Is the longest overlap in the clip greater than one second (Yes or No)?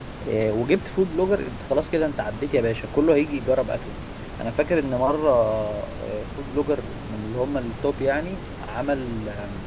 No